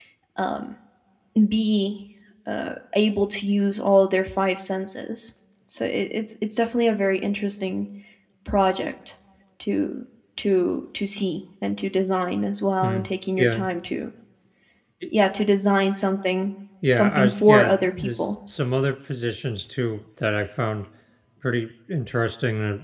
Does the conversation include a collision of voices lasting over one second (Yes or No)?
Yes